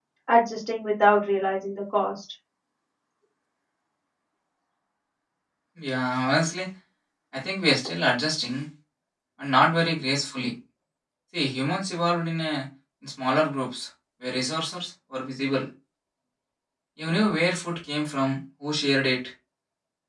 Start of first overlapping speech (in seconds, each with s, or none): none